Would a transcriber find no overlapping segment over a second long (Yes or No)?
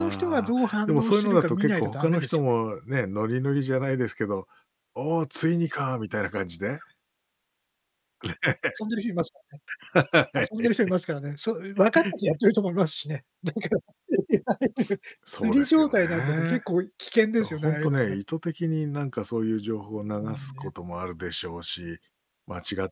No